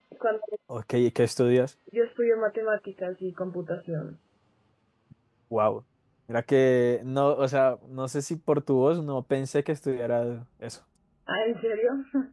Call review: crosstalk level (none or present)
none